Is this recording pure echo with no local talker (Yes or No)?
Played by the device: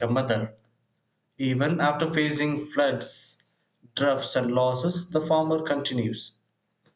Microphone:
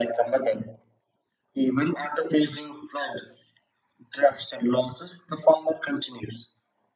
Yes